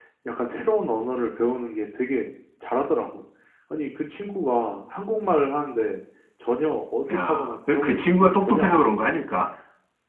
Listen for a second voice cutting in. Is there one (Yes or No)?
Yes